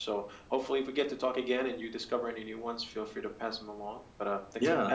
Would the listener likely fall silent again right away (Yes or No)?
No